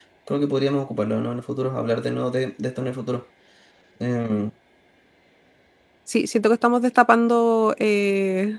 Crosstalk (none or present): none